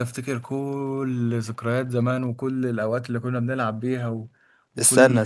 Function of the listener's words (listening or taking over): listening